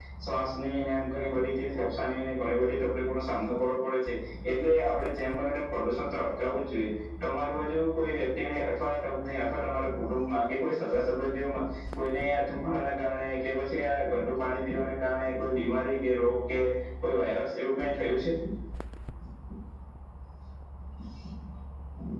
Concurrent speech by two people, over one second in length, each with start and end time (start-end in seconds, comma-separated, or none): none